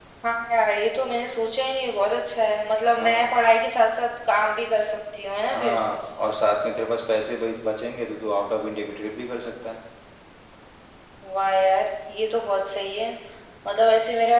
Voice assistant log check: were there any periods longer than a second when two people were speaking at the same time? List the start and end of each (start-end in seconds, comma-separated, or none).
none